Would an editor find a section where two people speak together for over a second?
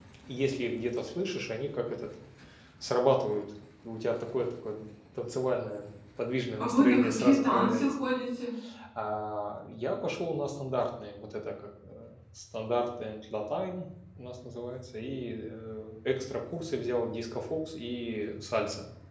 Yes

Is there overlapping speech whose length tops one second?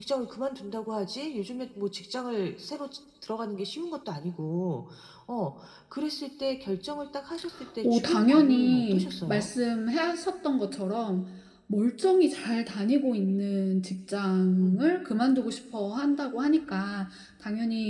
Yes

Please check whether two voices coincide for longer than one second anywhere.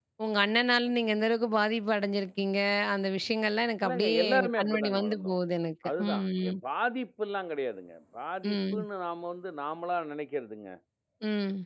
Yes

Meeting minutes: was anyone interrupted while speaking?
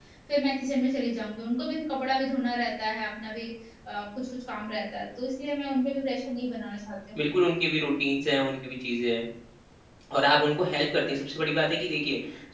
No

